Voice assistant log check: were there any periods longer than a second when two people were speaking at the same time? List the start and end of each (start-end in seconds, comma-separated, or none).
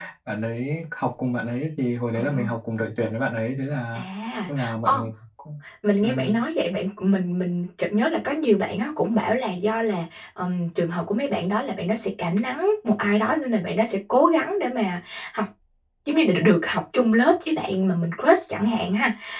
none